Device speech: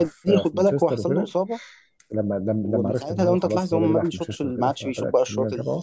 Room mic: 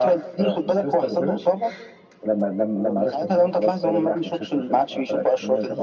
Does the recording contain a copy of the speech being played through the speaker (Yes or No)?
Yes